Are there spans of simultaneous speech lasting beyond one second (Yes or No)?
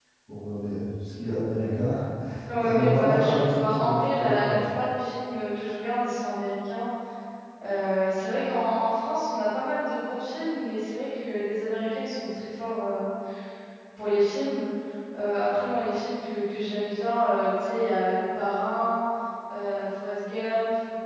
Yes